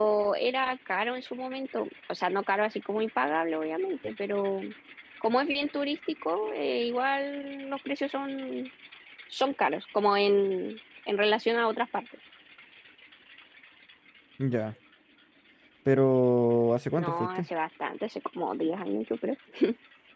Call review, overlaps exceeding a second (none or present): none